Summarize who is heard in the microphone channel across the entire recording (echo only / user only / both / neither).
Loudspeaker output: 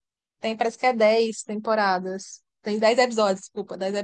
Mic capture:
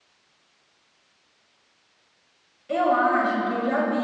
user only